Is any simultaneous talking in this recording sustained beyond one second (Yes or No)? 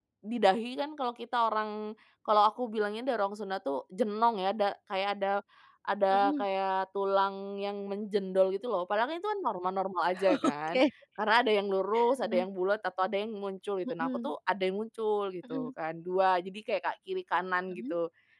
No